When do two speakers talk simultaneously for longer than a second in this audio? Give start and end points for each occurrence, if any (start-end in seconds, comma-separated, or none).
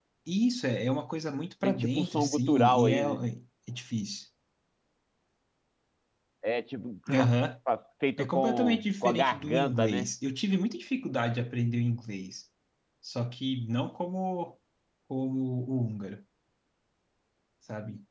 1.6-3.0, 8.2-10.1